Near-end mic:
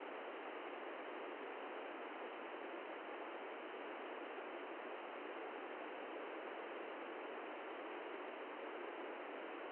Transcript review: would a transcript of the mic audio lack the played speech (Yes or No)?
Yes